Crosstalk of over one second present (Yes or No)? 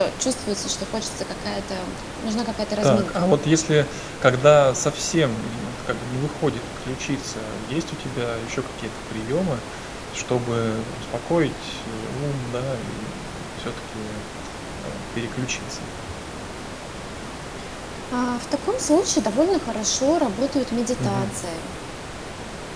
No